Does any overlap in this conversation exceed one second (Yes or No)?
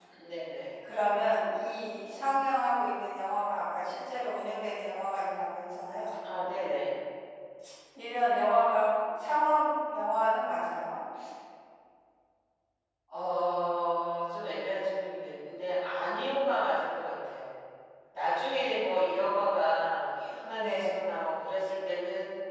No